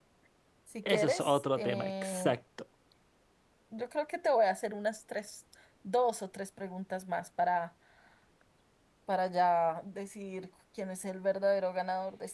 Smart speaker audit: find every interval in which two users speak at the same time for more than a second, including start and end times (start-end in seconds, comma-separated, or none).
0.9-2.4